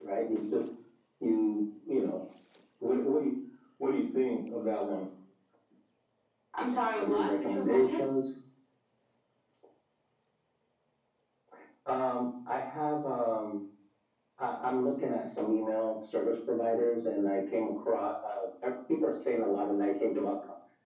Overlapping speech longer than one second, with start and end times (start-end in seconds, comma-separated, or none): 6.7-8.0